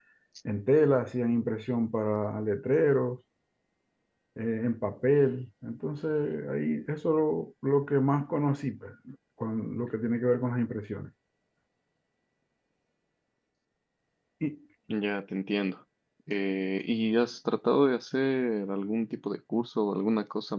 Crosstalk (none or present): none